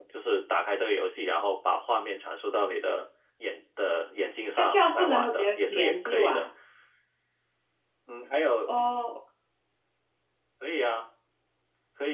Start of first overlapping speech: 5 s

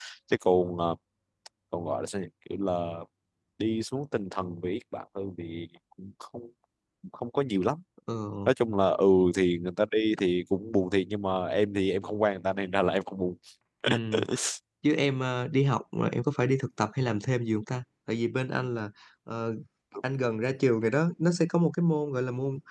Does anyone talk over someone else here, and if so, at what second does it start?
none

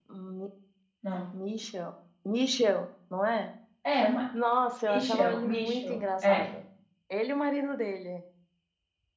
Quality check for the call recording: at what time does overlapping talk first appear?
5 s

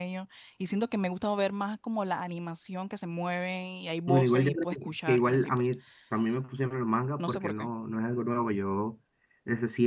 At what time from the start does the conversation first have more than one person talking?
4 s

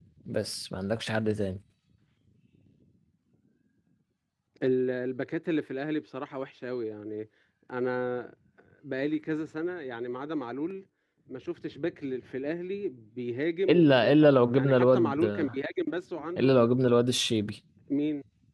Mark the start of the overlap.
14 s

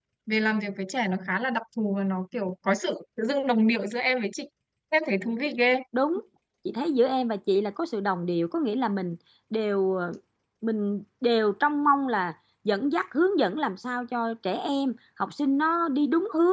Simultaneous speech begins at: none

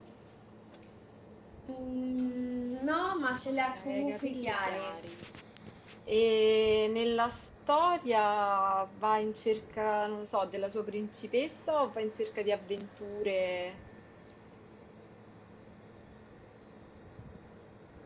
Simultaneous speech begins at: 4 s

